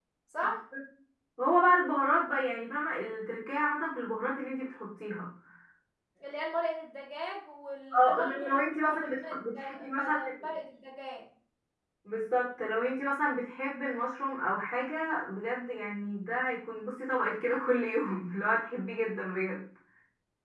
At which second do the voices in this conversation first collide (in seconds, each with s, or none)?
7.9 s